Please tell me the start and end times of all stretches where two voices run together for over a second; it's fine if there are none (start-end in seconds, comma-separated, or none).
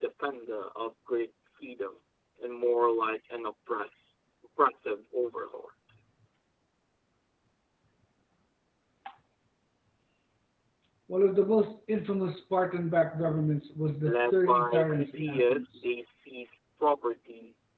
14.0-15.7